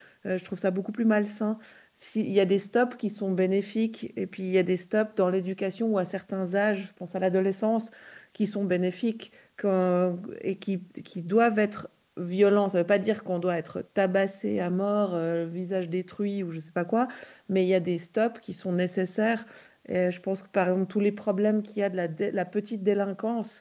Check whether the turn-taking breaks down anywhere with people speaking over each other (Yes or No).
No